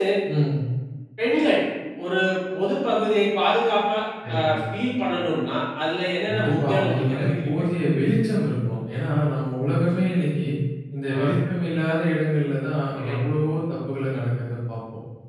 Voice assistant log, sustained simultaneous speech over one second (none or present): present